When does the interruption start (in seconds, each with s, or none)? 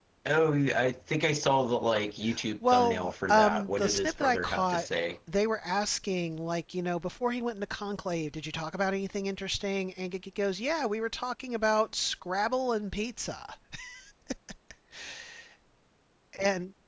2.7 s